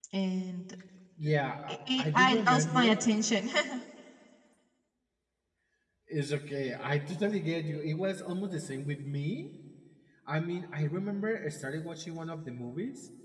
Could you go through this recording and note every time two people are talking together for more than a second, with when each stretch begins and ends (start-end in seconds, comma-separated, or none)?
1.7-3.0